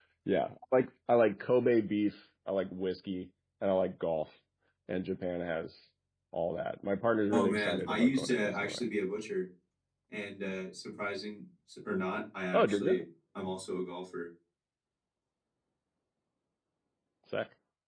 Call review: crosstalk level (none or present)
present